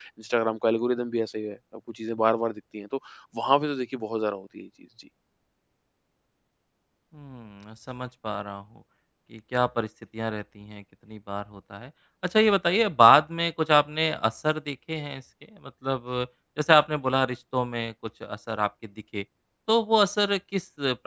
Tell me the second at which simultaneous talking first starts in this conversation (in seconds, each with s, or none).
none